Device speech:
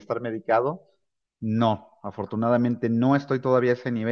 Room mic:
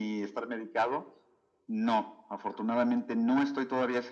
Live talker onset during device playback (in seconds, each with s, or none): none